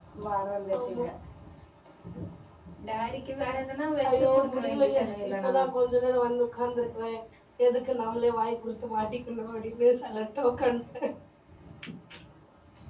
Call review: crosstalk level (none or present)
present